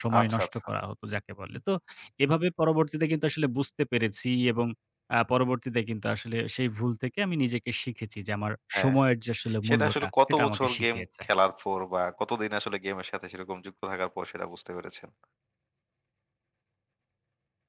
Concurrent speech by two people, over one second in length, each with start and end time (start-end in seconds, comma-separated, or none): 9.7-11.2